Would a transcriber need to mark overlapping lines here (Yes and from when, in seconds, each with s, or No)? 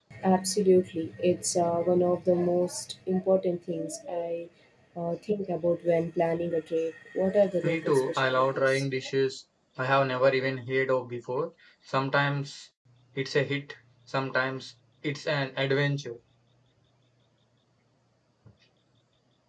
Yes, from 7.6 s